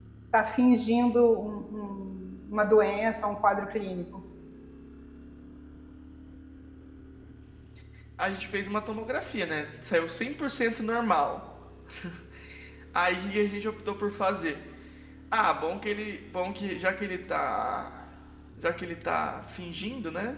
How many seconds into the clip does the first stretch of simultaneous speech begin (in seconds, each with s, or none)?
none